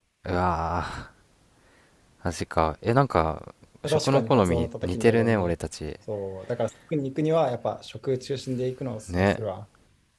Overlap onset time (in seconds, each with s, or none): 3.8 s